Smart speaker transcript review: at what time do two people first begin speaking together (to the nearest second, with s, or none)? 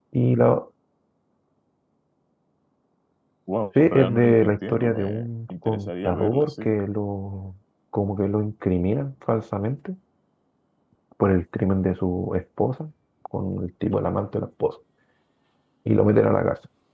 4 s